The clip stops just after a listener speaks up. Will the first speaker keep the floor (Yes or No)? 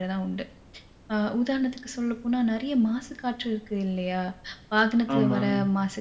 Yes